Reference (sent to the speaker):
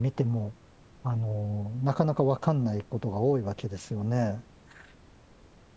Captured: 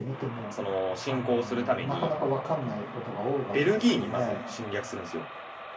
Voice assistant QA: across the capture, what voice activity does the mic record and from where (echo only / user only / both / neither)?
both